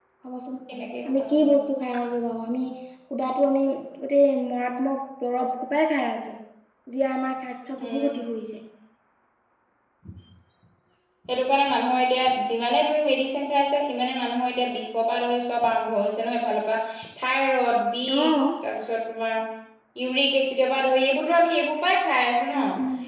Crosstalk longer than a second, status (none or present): none